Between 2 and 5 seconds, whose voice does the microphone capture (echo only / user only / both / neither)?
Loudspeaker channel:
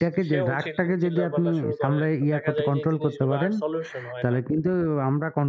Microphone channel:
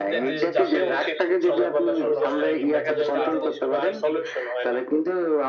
both